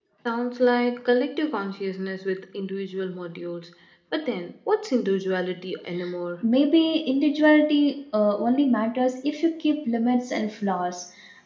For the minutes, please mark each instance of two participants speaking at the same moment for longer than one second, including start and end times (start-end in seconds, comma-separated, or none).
none